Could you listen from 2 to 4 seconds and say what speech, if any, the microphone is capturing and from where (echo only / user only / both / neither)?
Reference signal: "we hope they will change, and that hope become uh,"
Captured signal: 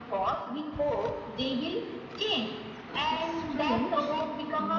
both